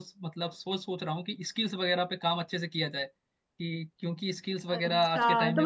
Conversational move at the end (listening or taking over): taking over